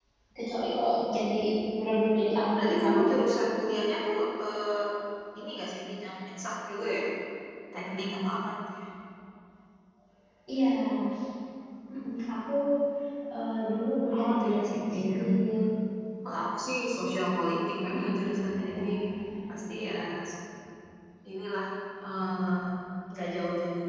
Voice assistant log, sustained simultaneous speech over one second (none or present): present